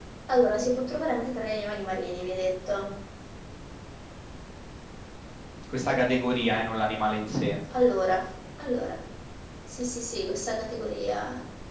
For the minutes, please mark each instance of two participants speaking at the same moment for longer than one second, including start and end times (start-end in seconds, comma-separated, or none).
none